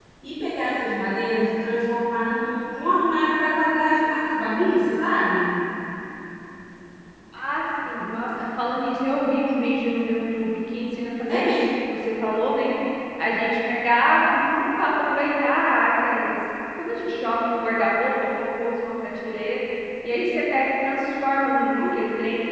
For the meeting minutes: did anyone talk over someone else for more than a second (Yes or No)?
No